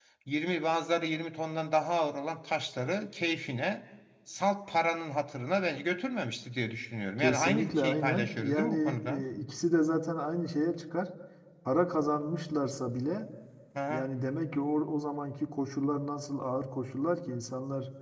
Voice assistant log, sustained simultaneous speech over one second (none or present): present